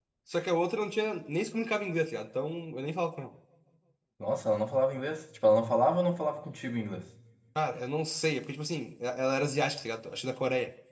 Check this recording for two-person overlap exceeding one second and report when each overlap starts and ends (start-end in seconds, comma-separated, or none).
none